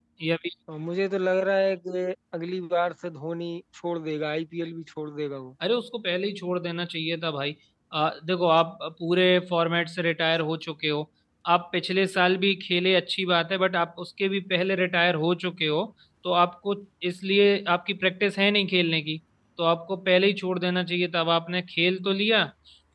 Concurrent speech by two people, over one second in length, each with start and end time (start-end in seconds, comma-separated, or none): none